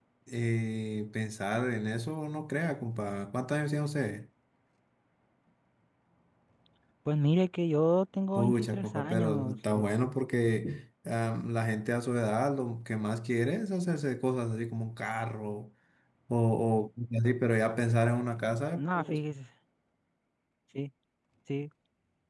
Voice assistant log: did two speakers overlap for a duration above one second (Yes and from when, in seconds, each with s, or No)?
Yes, from 8.4 s